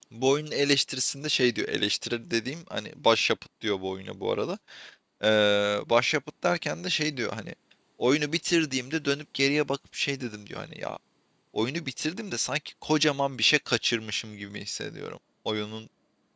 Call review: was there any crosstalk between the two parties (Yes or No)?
No